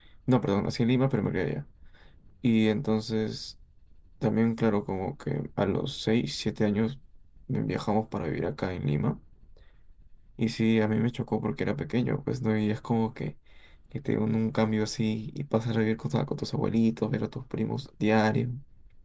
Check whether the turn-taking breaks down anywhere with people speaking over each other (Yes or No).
No